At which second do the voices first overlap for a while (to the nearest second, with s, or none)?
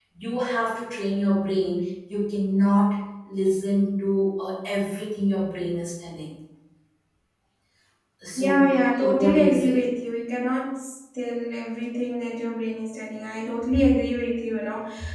8 s